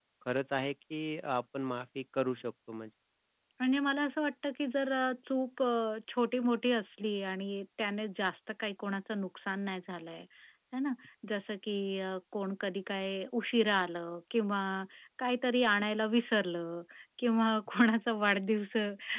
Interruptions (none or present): none